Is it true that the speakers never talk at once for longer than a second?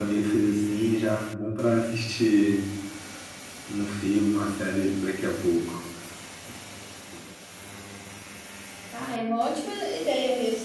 Yes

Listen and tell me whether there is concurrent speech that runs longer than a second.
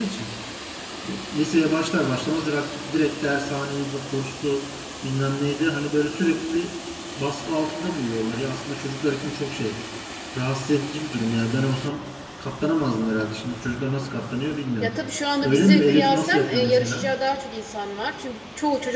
Yes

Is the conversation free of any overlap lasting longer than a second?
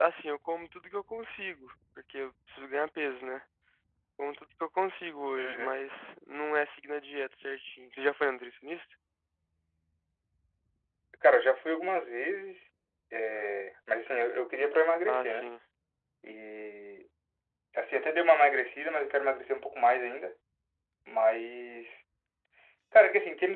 Yes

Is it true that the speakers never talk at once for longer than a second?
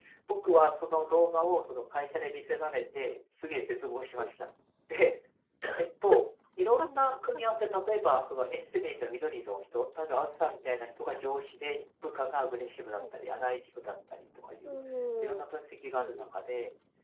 Yes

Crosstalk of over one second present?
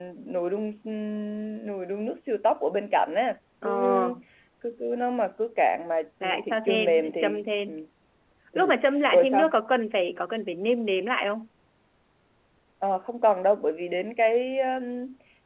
Yes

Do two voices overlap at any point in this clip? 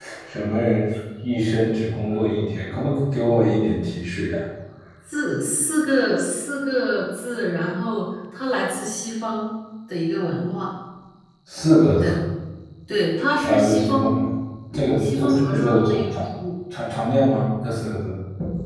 Yes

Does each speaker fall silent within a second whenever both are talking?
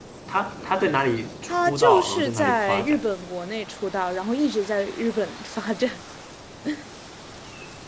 No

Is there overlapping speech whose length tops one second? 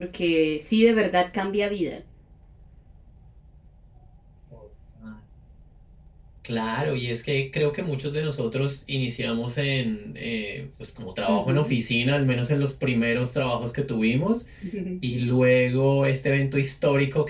No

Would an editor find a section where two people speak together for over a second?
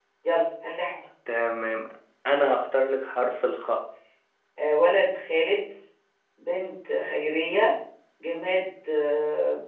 No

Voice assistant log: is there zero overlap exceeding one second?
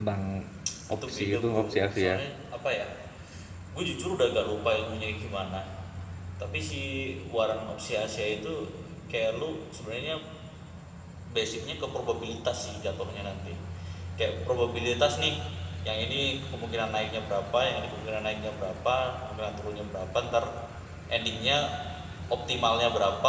No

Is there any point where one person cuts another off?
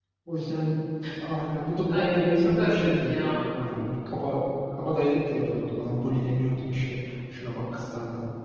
Yes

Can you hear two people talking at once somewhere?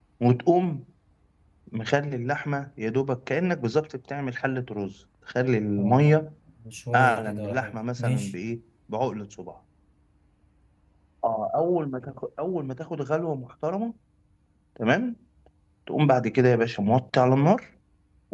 Yes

